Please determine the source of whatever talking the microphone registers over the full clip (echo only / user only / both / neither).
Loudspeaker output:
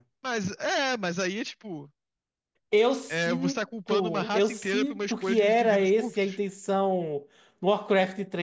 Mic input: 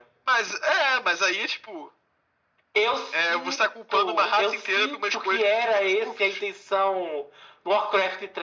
echo only